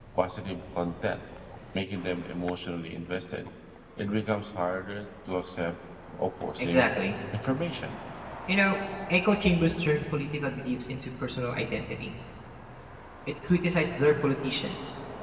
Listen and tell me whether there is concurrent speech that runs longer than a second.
No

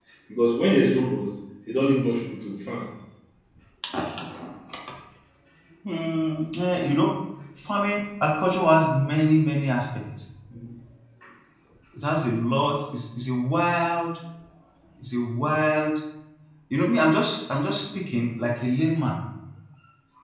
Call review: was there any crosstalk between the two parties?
No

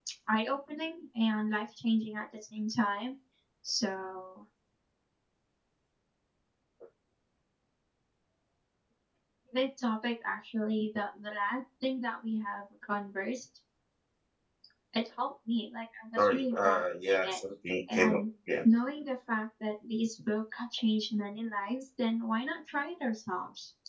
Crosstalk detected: Yes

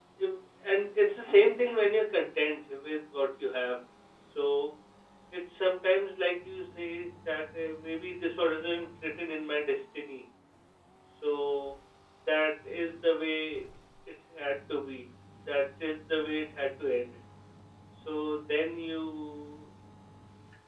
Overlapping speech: No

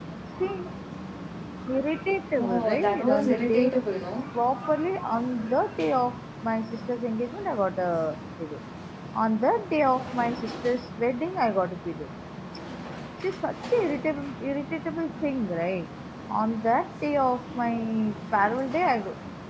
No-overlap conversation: No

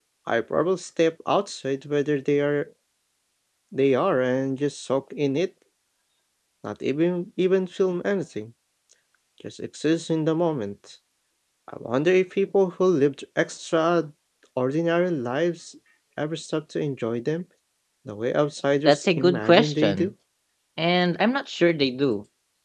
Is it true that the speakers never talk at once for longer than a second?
No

